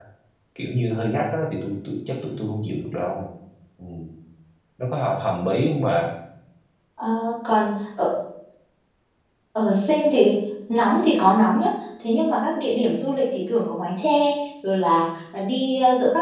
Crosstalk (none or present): none